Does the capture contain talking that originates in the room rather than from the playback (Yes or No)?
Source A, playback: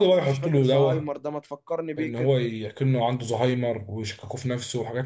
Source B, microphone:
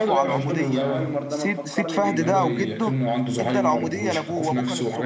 Yes